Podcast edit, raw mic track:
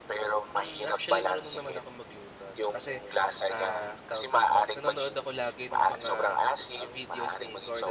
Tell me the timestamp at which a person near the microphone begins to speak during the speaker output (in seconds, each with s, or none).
0.6 s